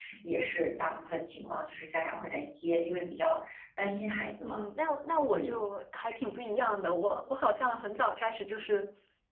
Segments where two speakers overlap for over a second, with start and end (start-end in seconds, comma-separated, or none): none